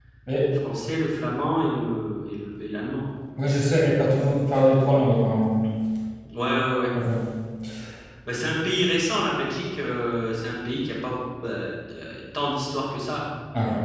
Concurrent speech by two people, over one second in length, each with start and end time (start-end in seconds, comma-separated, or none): none